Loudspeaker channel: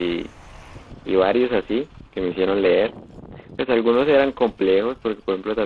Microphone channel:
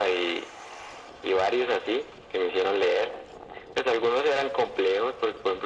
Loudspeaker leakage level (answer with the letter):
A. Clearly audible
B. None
A